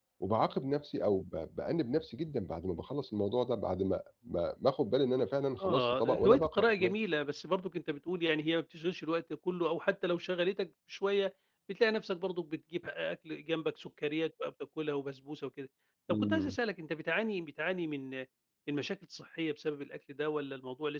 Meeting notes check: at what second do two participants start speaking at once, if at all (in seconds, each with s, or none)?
5.6 s